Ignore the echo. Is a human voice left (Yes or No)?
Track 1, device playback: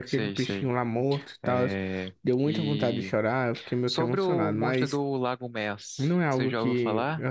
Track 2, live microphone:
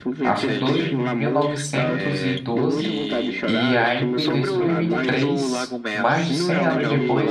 Yes